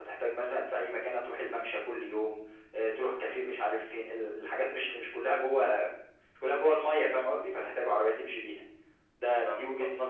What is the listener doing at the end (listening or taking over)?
listening